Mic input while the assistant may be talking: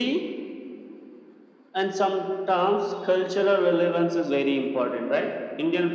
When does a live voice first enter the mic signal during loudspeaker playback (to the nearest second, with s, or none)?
none